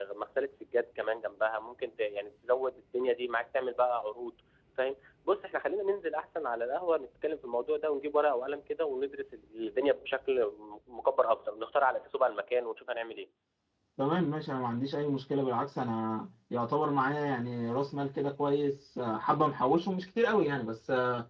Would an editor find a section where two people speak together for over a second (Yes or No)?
No